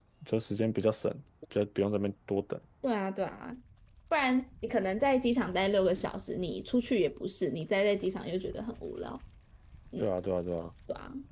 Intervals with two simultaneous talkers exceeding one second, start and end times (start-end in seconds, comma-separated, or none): none